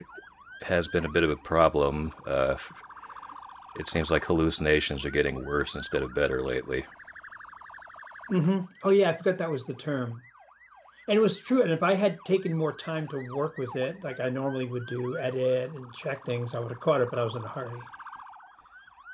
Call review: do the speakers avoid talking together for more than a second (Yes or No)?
Yes